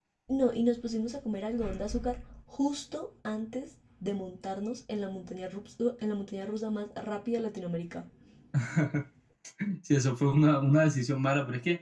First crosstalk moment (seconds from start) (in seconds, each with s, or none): none